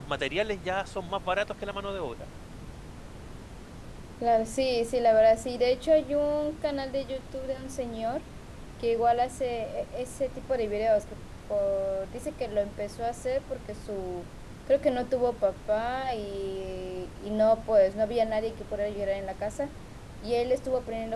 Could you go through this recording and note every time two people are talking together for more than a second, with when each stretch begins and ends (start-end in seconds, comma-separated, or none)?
none